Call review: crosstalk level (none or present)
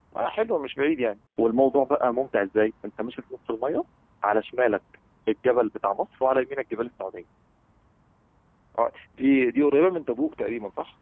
none